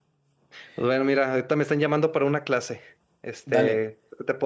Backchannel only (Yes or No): Yes